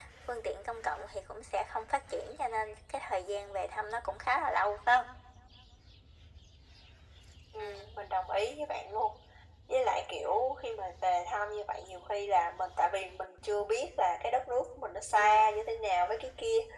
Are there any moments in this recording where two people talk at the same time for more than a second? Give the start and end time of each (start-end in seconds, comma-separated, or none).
none